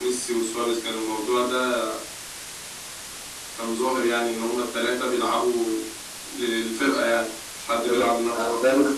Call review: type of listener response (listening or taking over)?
taking over